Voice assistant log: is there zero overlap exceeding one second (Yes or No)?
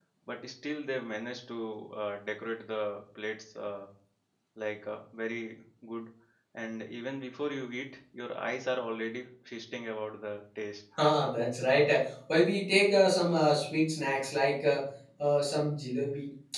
Yes